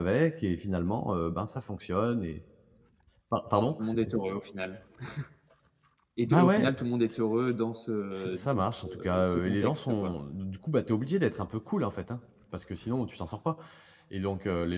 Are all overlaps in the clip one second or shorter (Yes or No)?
No